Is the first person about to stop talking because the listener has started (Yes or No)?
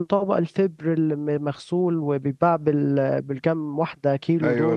Yes